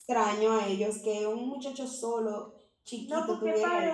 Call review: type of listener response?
taking over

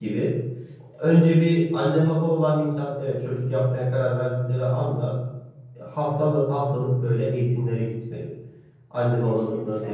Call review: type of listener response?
listening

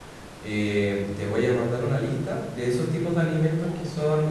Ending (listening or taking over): listening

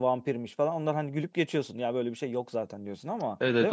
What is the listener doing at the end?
taking over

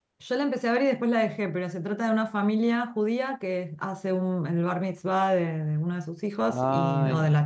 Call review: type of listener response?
listening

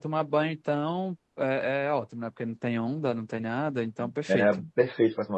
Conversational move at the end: taking over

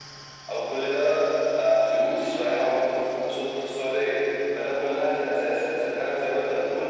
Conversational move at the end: listening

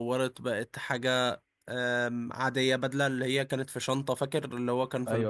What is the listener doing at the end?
taking over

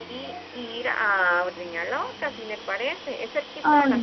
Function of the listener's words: listening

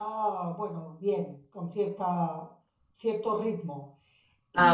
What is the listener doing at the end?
taking over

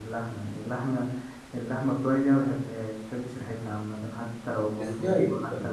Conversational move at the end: taking over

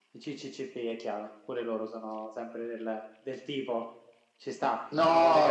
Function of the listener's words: taking over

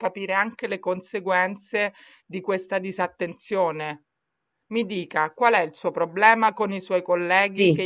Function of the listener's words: listening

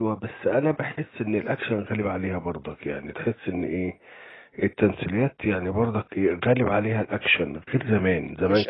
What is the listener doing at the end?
taking over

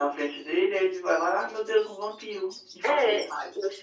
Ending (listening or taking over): taking over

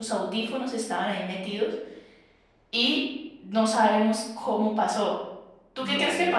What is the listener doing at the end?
taking over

